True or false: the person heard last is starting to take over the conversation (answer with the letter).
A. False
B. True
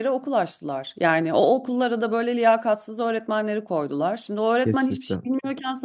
A